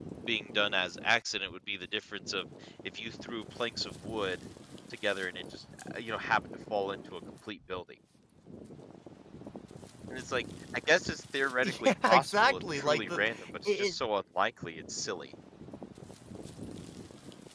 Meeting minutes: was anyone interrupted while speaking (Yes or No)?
Yes